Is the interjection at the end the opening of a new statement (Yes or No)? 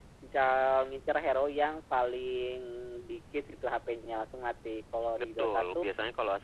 Yes